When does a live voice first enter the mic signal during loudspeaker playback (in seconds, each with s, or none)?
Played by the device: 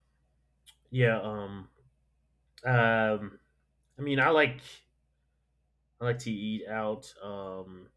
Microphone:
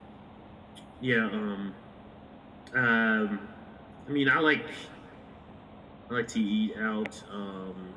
none